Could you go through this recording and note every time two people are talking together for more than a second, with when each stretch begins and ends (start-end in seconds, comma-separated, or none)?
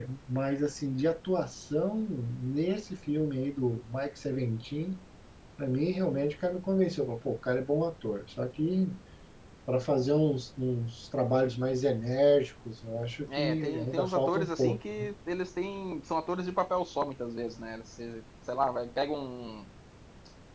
13.4-15.1